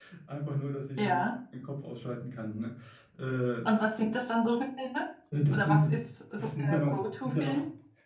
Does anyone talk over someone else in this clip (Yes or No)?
Yes